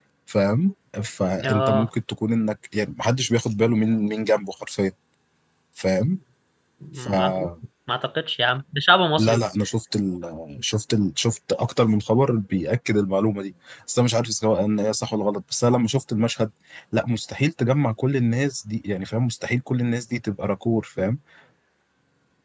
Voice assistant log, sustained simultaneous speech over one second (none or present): none